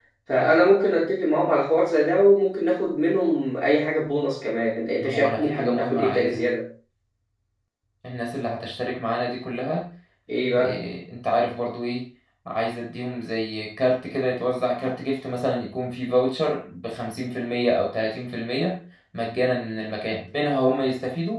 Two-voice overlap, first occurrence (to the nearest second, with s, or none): 5 s